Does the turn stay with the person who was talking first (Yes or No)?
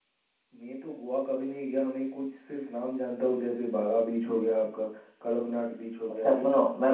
No